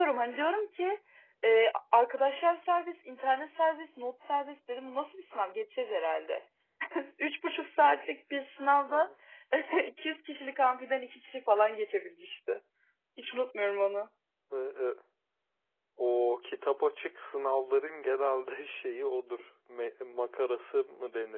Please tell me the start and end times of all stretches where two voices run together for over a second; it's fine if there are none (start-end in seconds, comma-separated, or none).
none